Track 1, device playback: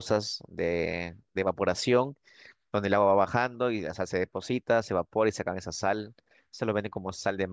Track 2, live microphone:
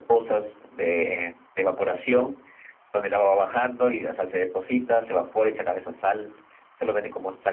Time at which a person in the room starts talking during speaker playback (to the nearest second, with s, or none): none